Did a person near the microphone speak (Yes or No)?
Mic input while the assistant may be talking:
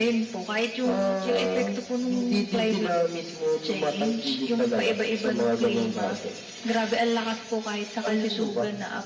No